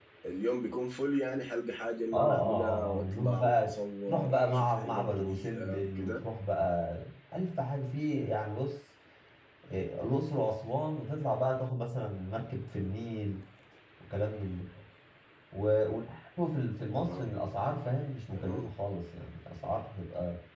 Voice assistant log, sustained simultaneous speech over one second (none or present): present